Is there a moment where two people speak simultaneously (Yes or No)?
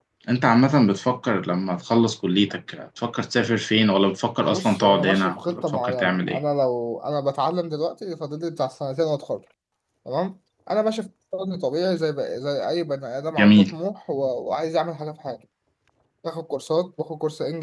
Yes